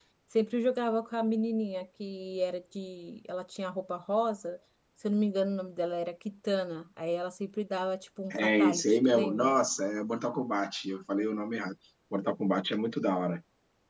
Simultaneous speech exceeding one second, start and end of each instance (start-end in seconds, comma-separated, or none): 8.3-9.6